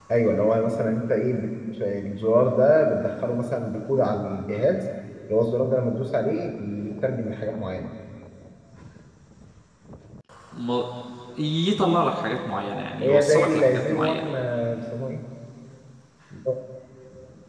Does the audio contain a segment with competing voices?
Yes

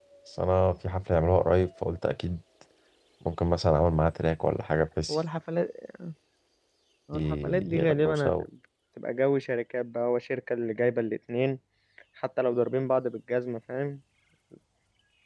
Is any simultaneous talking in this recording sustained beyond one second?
Yes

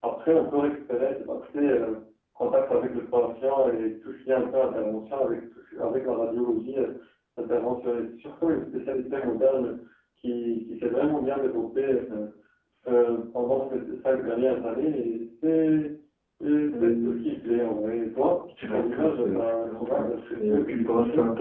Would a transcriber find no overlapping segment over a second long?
No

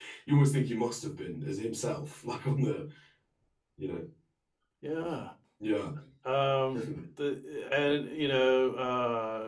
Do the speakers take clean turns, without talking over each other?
Yes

